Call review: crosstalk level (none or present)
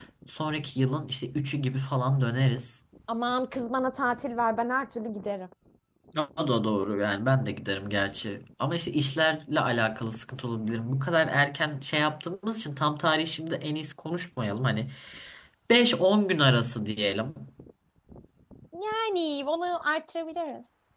none